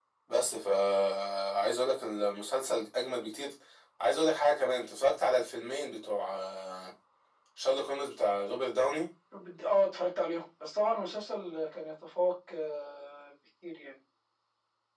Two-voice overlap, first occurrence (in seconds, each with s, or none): none